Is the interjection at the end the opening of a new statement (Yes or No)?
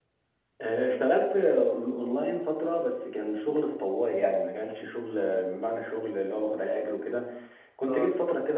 No